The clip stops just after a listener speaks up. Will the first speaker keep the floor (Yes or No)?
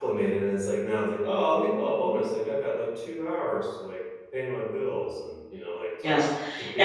No